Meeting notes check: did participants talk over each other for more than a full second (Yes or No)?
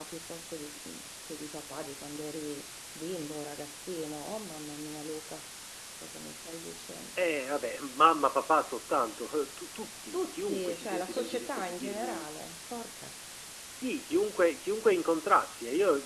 Yes